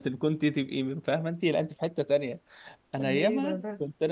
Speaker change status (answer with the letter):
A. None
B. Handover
A